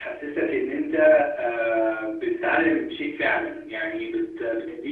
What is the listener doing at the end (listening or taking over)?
listening